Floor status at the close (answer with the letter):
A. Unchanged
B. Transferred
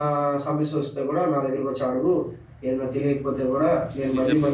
A